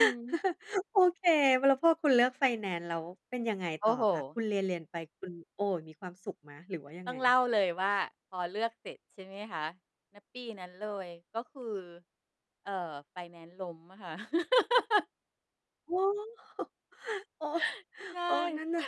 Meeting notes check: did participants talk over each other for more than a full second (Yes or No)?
No